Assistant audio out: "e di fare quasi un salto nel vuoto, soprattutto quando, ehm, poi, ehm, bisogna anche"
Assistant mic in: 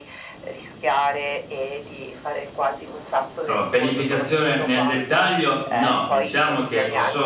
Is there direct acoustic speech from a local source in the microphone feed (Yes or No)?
Yes